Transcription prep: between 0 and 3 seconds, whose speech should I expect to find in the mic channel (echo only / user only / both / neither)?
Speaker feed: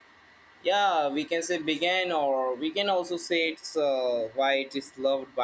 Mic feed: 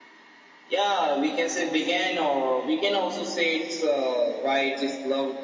echo only